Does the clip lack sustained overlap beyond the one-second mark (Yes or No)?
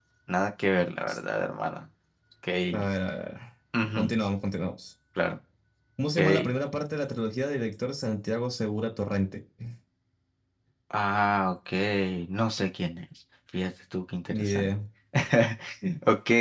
Yes